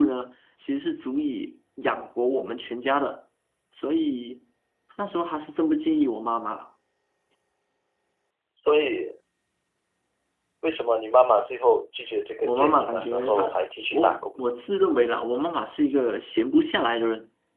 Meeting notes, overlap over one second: present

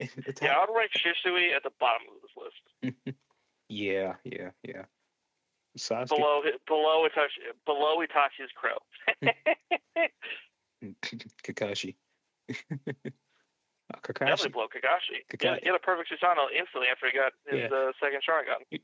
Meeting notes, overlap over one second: none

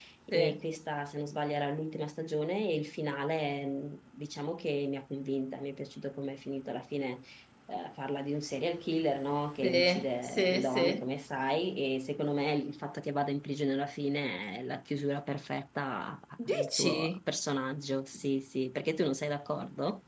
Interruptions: present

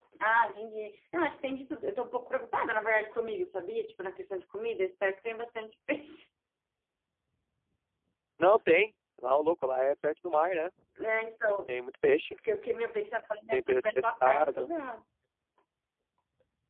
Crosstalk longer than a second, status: present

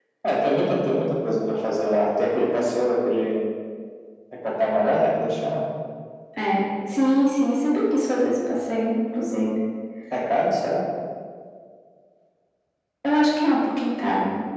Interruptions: none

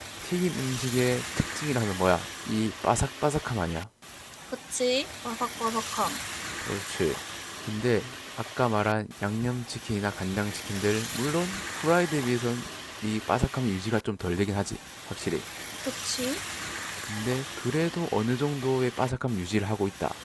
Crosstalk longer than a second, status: none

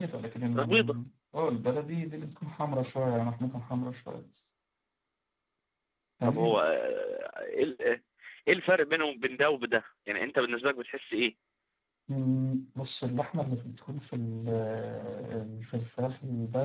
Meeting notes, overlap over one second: none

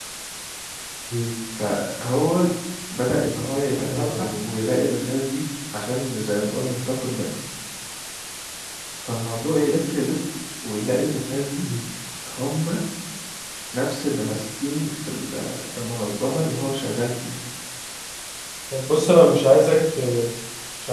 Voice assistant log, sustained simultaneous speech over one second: none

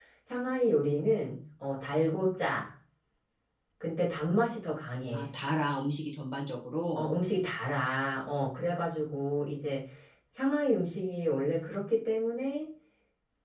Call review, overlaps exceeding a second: none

